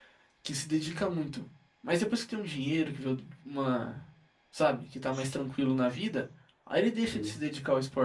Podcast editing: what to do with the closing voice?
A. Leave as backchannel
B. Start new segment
A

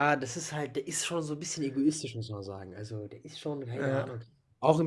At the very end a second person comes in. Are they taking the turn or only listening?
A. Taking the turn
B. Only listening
B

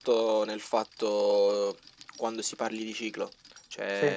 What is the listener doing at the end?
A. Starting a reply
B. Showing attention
B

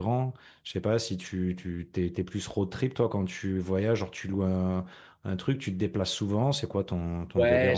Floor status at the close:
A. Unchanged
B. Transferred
B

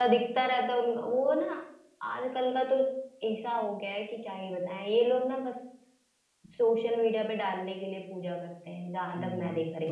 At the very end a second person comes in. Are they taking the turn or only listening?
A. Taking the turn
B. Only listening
A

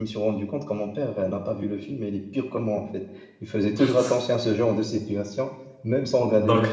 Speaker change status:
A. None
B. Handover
B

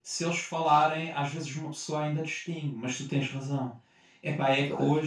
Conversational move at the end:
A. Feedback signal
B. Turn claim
A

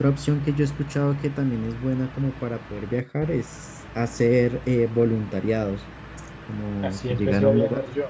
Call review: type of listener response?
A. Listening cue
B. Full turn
B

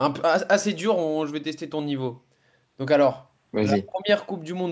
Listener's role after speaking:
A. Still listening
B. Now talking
A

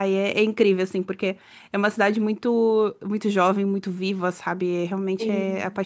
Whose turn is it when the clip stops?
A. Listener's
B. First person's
A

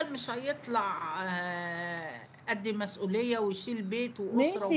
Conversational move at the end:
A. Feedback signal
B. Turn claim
B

